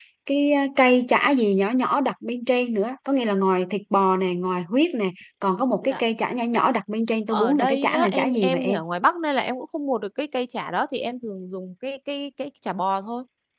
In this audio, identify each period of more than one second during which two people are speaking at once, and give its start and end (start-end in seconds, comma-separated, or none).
7.3-8.8